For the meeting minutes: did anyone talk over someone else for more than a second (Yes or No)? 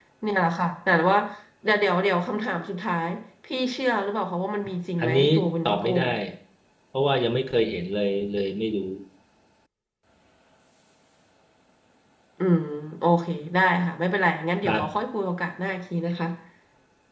No